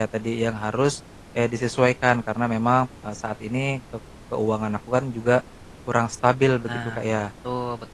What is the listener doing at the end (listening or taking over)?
taking over